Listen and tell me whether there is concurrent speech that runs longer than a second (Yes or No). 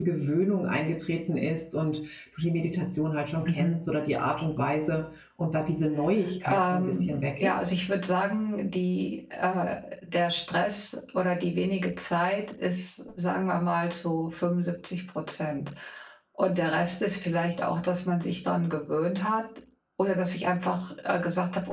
Yes